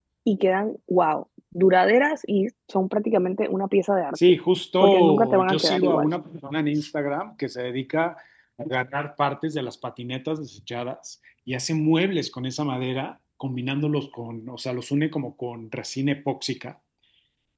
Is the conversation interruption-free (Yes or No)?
No